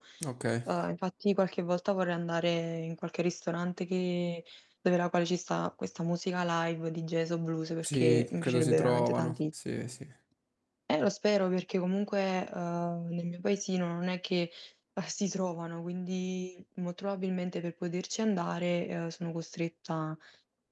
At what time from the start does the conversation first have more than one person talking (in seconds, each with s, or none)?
7.8 s